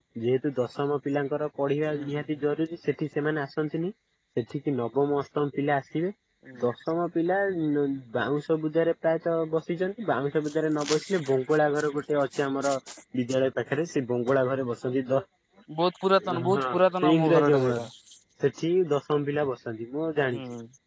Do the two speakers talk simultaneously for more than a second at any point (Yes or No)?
Yes